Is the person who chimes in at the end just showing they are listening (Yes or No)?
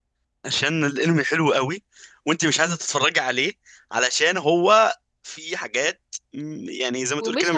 No